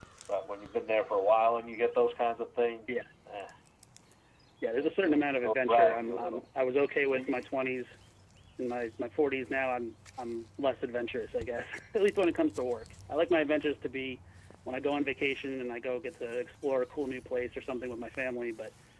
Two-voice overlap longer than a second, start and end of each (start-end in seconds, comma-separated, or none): 4.8-6.4